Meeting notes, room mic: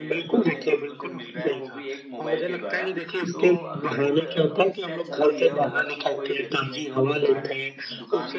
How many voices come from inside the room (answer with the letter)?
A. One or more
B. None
A